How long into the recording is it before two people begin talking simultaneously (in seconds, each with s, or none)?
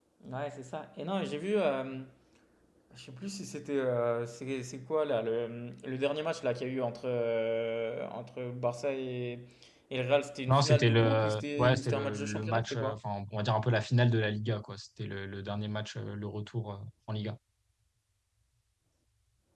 10.5 s